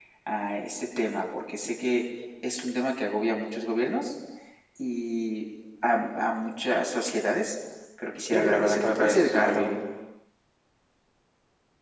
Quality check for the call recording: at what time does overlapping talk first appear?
8.3 s

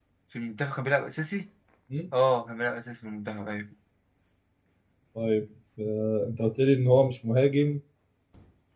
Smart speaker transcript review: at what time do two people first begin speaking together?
none

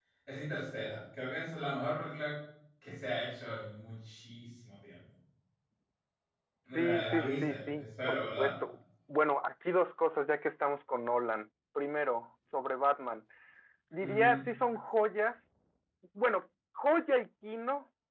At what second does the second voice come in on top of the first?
6.7 s

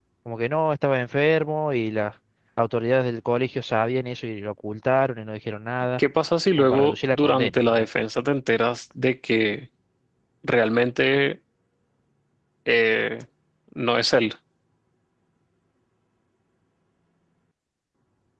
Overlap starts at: 6.6 s

